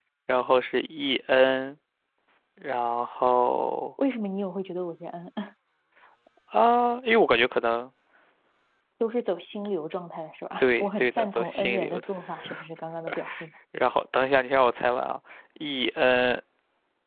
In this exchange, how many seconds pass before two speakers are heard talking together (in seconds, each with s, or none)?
10.6 s